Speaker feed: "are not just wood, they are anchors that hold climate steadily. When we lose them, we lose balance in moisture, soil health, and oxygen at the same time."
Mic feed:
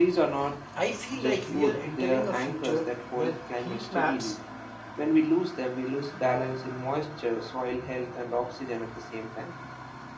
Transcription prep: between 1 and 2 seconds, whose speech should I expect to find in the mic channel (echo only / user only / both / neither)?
both